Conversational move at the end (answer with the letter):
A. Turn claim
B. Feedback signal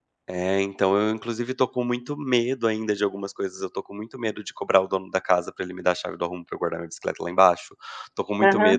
B